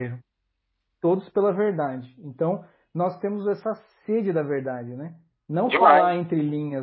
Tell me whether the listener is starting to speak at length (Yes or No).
No